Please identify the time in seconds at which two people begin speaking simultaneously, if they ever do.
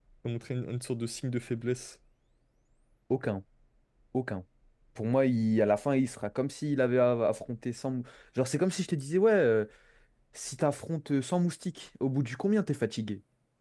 none

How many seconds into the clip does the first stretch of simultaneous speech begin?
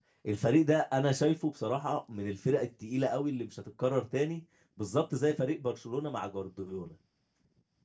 none

